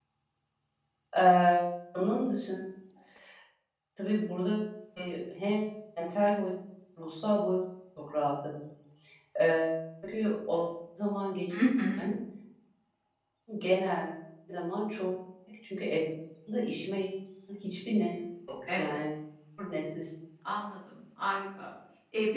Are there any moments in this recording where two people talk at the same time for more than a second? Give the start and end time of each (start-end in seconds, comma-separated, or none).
none